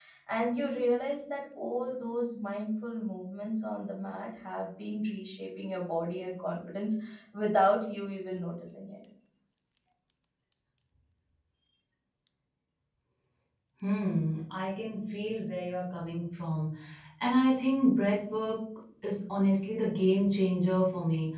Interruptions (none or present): none